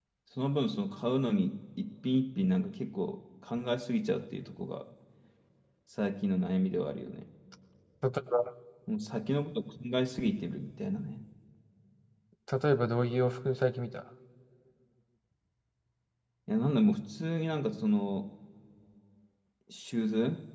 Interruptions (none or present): none